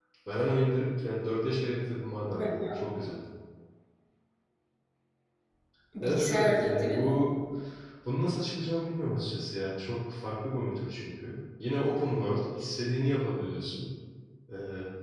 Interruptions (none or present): present